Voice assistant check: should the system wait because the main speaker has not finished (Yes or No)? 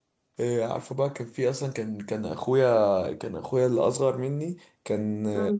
Yes